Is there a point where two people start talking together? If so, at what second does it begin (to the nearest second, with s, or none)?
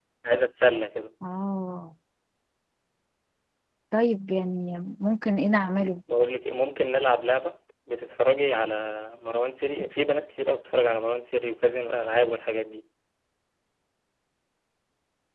none